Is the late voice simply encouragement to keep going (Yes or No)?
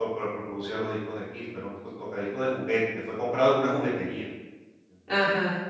Yes